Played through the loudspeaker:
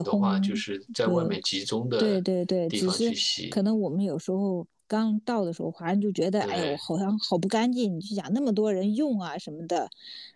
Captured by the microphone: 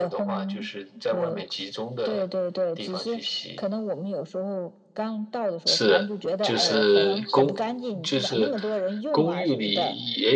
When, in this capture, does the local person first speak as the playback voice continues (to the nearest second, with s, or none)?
6 s